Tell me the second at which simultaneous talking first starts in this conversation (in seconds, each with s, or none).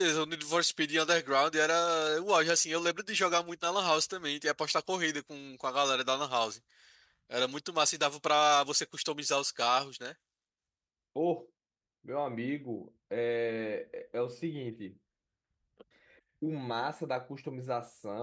none